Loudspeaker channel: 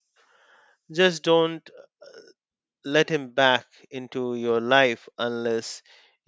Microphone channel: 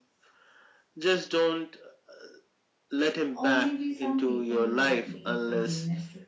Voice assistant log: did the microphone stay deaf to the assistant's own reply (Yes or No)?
No